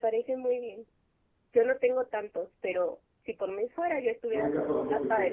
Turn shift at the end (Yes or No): Yes